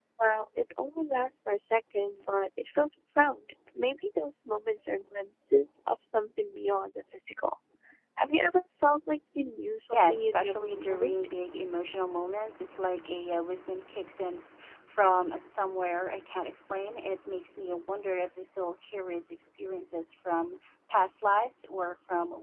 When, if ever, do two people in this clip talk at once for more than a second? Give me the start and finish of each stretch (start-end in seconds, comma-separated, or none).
9.9-11.1